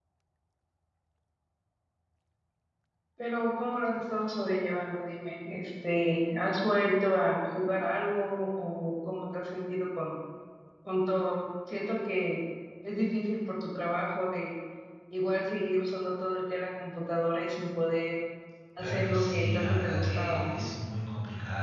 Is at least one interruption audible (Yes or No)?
Yes